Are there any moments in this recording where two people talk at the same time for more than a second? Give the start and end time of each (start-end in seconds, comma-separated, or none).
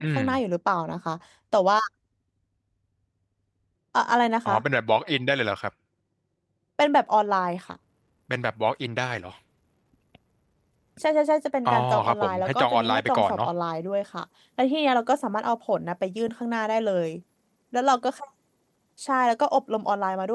11.7-13.5